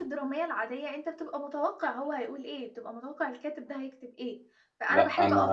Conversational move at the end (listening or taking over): listening